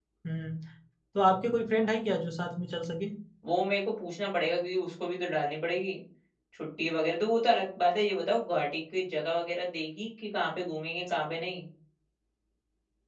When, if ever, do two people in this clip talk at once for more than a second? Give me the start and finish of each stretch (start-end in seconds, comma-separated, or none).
none